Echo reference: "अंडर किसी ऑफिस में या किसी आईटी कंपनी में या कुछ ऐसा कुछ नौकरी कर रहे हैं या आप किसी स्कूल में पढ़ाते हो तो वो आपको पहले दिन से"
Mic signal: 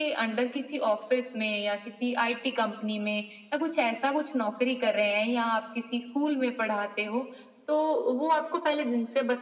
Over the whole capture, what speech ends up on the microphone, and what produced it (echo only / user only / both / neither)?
echo only